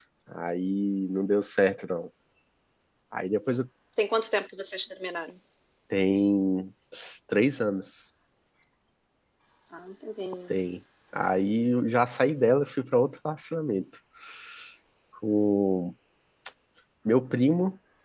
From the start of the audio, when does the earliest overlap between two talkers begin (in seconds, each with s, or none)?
none